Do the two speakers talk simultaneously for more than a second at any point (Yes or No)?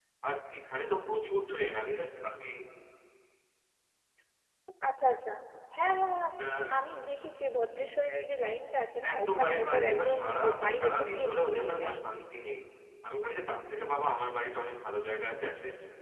Yes